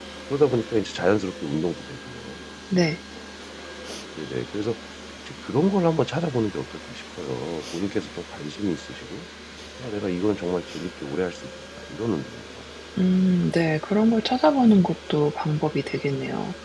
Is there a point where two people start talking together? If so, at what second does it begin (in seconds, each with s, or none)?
none